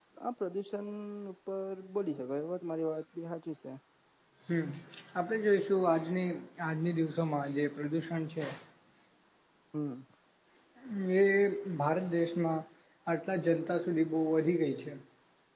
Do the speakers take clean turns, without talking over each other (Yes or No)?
Yes